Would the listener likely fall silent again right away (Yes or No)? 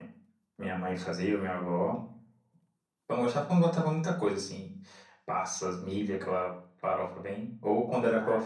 Yes